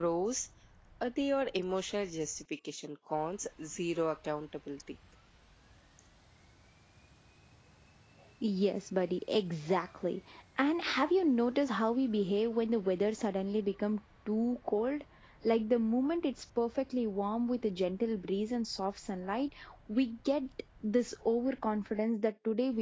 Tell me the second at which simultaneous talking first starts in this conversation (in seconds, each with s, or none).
none